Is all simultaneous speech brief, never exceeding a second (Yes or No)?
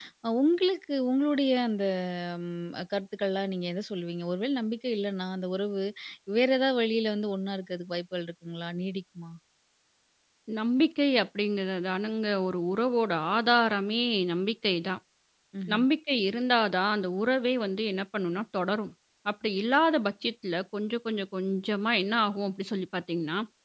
Yes